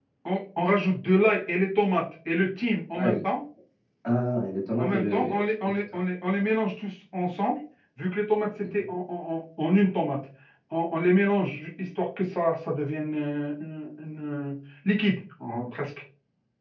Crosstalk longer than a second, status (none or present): present